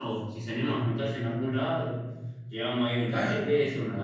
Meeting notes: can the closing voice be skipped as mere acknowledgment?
Yes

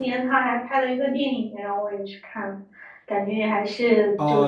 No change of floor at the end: No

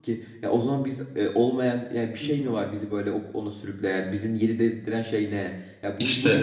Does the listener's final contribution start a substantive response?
No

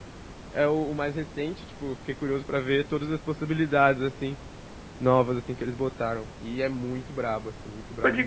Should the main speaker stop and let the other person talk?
Yes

